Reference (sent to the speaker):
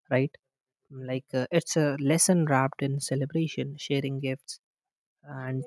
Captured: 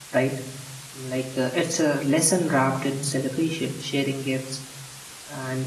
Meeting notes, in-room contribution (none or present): none